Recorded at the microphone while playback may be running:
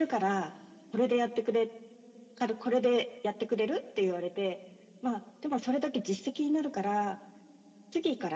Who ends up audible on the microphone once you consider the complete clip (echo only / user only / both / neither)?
echo only